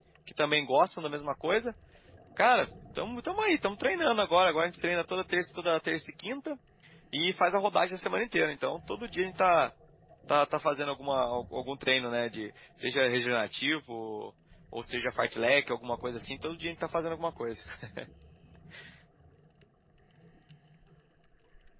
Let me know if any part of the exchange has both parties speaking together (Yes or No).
No